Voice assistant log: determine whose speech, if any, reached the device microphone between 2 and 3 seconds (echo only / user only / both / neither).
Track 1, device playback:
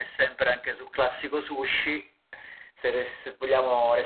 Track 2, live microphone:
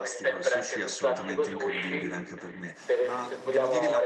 both